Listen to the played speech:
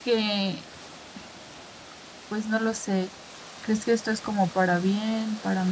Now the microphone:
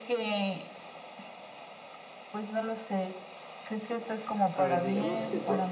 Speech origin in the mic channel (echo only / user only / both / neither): both